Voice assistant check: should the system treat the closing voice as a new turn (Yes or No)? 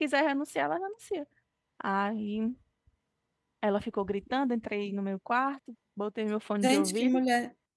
Yes